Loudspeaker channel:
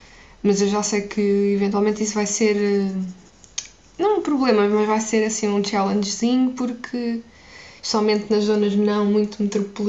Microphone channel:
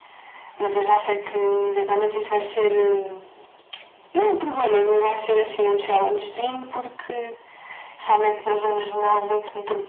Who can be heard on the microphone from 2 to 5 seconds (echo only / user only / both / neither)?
echo only